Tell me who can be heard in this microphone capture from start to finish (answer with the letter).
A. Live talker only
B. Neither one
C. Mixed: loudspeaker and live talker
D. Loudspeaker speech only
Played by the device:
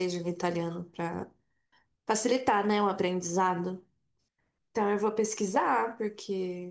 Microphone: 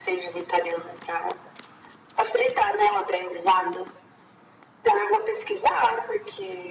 D